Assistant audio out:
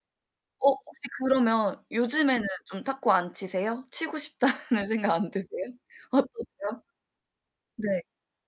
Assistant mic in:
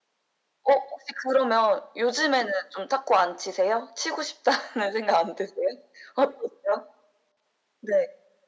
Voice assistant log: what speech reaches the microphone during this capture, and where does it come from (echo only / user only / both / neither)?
echo only